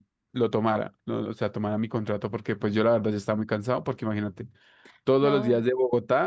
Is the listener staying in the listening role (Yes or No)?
Yes